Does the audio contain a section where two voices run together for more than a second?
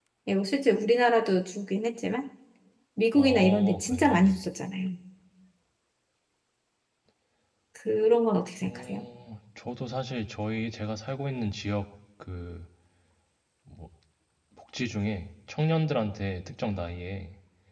Yes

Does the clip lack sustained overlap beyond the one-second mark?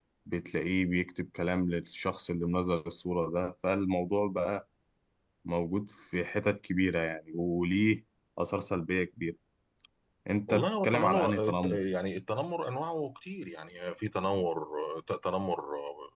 No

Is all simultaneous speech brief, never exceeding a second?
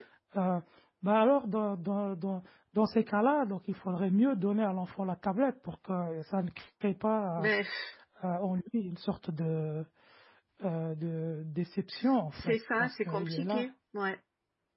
No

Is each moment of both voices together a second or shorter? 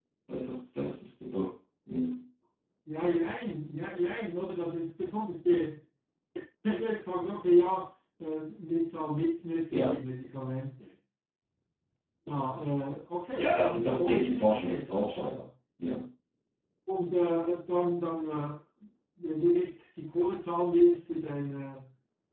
No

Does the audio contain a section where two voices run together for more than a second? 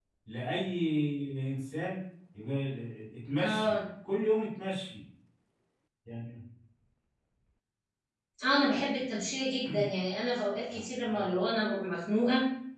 No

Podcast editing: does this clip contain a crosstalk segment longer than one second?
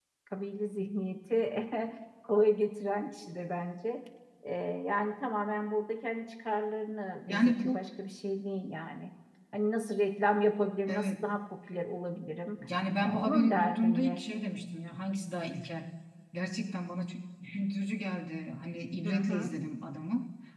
Yes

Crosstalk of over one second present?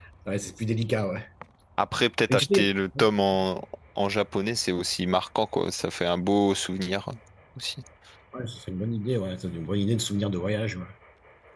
No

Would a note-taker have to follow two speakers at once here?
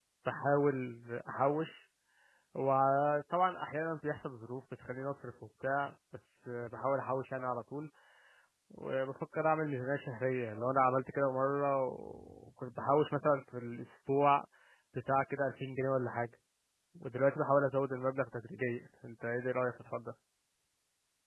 No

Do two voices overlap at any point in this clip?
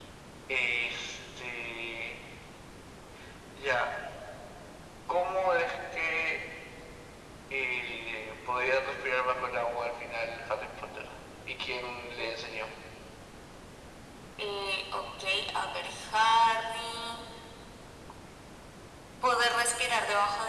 No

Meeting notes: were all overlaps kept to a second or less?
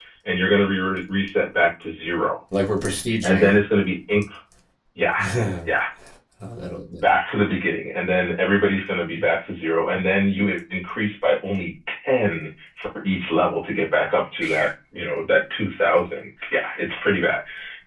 Yes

